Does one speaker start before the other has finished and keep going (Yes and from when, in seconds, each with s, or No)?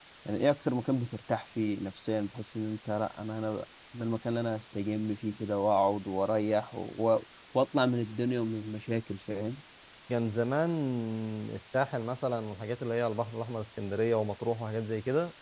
No